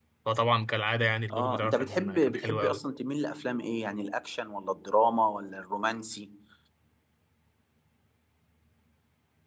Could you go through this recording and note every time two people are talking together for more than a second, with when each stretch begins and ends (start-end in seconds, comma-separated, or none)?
1.3-2.8